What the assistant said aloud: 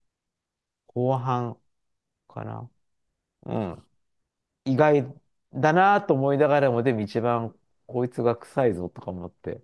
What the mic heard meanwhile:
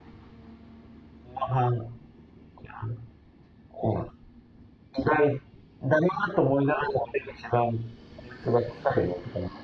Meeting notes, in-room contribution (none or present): none